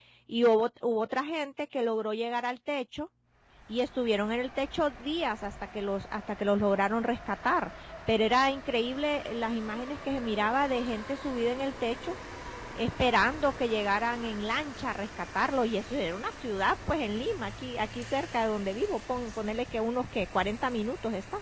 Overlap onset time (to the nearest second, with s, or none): none